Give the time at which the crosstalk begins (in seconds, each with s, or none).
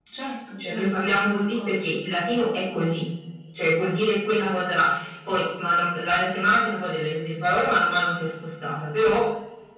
0.6 s